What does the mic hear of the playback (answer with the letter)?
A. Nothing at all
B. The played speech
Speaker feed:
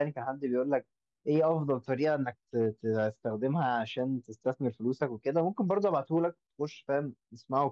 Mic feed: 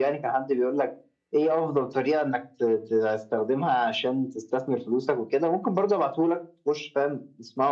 B